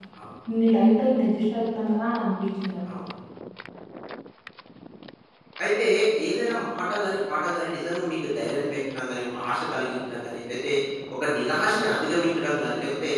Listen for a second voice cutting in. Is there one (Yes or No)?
No